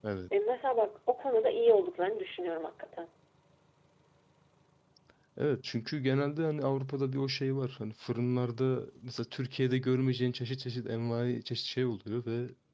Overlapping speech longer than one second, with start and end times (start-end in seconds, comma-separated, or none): none